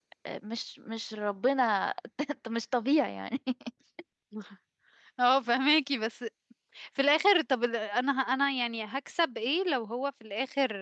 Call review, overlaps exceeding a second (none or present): none